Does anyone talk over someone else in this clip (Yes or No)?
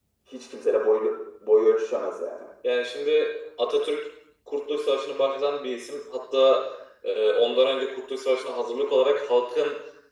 No